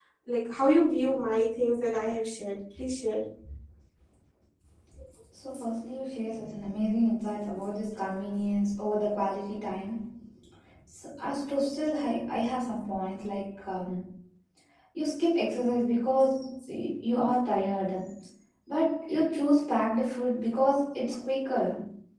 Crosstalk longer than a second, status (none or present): none